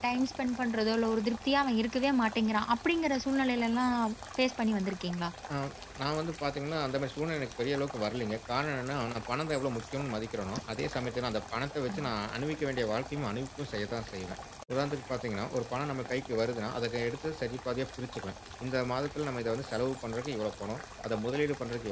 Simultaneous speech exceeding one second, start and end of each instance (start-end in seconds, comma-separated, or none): none